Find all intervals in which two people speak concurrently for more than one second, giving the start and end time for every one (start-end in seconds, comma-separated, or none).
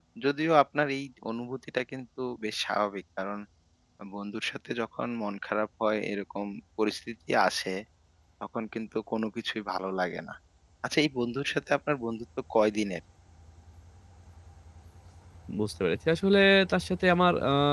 none